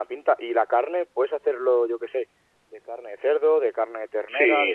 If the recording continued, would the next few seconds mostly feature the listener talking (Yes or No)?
Yes